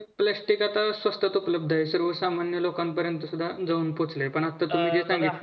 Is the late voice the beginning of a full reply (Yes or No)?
No